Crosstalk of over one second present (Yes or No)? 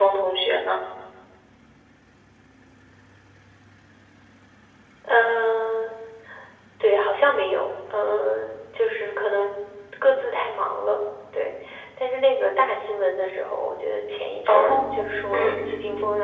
No